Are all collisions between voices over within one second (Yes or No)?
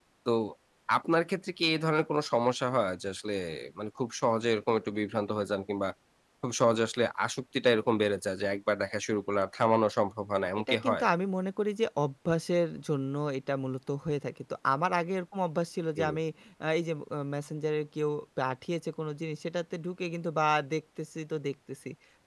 Yes